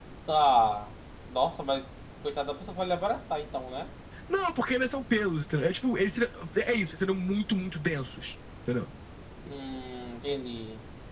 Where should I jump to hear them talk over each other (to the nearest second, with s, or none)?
none